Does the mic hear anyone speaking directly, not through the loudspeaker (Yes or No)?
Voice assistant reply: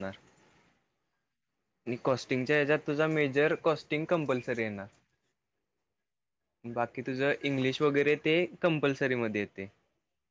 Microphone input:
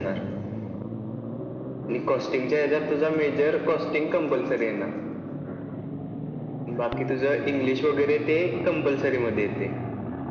No